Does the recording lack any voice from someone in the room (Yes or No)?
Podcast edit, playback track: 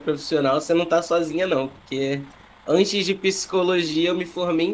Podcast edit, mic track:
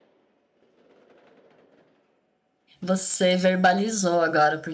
No